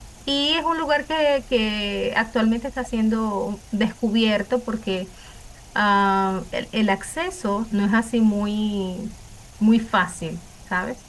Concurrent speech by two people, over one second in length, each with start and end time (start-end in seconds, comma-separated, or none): none